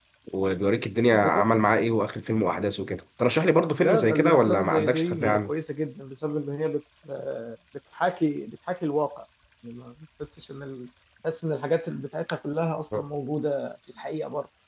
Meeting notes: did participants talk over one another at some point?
Yes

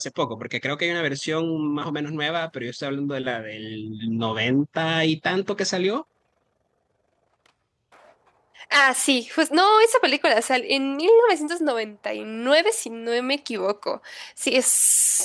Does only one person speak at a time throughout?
Yes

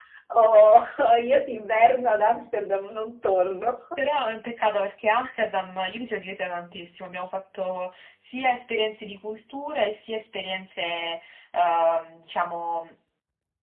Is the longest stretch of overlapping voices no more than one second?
Yes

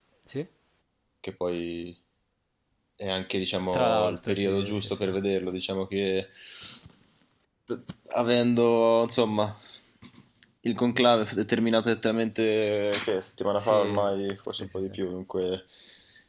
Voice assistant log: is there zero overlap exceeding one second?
No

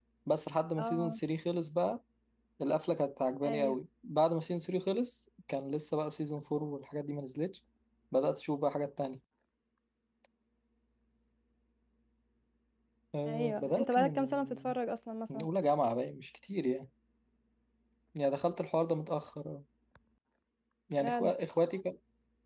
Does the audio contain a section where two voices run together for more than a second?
Yes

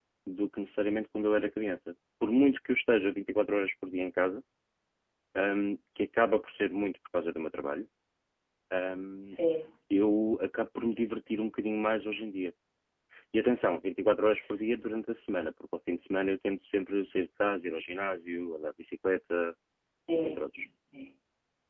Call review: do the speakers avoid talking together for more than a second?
Yes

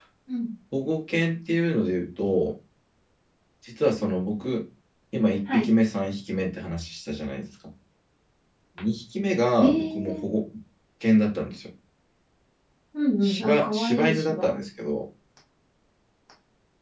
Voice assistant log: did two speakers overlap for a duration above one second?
Yes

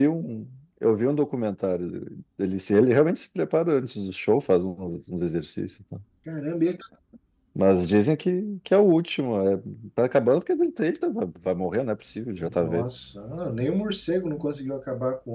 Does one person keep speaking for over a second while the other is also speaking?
No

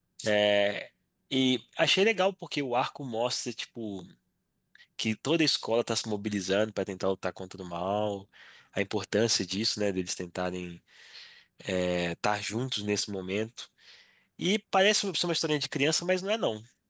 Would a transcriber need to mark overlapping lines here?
No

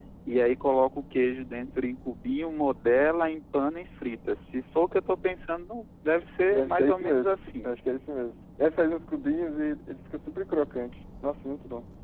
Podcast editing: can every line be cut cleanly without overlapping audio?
No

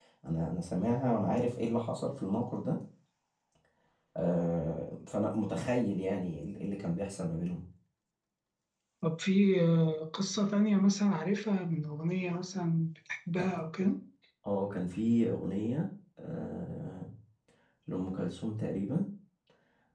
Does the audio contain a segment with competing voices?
No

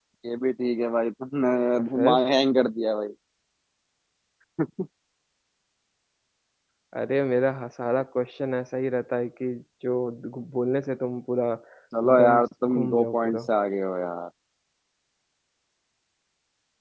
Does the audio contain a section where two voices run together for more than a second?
Yes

